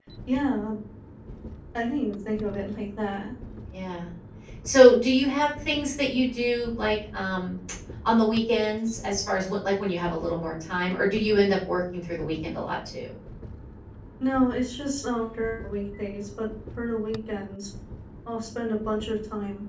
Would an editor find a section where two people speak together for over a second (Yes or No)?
No